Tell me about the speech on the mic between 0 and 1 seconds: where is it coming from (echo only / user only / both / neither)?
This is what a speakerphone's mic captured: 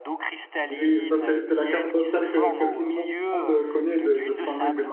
both